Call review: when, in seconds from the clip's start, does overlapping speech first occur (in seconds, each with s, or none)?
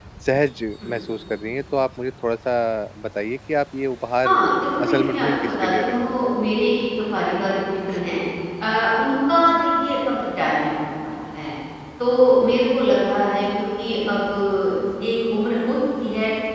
4.8 s